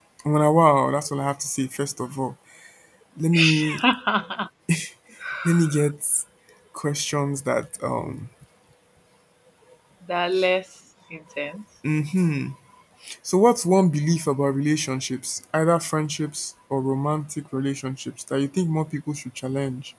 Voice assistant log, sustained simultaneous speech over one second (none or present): none